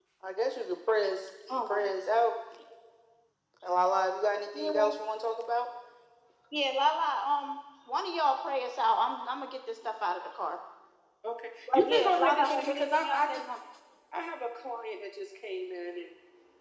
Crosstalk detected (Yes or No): Yes